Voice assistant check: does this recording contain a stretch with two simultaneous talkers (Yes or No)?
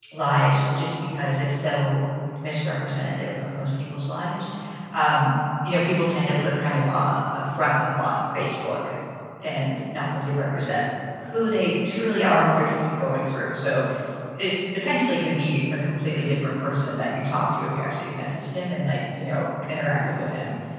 No